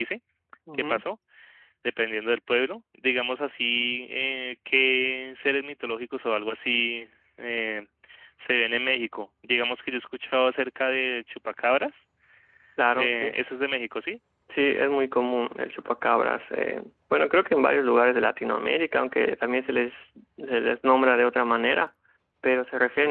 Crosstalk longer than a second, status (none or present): none